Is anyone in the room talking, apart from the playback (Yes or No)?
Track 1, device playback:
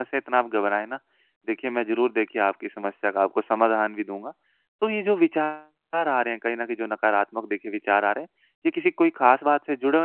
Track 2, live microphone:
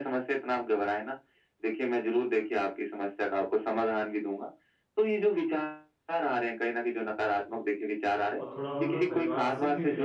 Yes